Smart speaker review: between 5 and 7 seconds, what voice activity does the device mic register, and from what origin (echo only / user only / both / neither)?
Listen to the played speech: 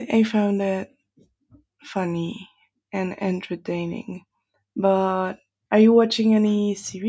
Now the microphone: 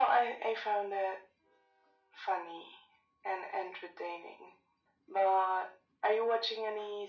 echo only